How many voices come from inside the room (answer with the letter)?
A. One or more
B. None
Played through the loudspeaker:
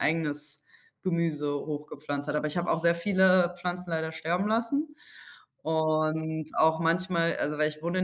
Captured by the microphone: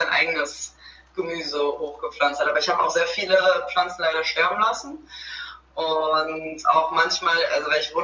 B